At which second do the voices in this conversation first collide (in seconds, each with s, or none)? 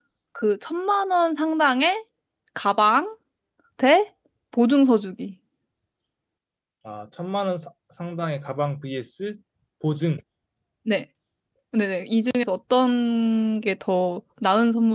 none